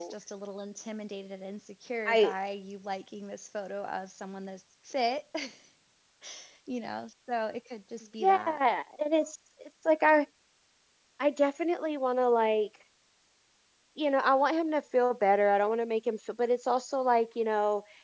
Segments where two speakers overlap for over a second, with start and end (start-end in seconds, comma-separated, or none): none